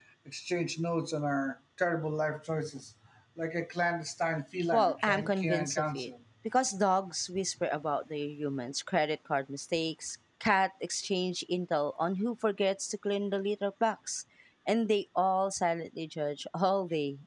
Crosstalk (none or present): present